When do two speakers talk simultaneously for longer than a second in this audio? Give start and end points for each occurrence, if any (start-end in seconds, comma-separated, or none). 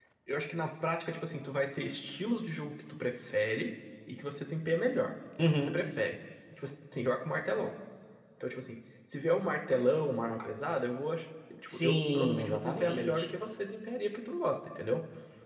11.7-13.3